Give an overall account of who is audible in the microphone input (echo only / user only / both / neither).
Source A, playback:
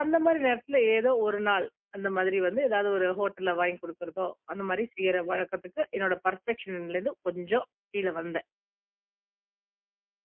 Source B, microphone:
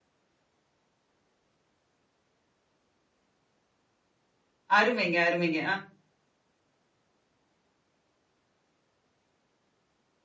user only